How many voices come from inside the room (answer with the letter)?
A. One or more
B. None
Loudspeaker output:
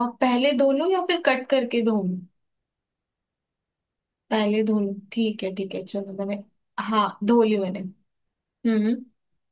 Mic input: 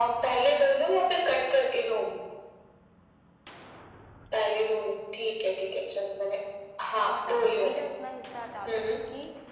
A